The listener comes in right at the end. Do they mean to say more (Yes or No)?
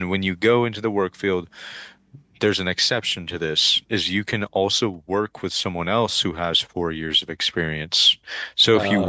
No